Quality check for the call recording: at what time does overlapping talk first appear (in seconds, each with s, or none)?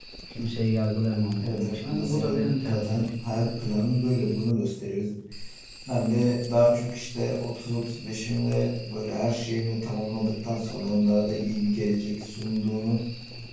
1.4 s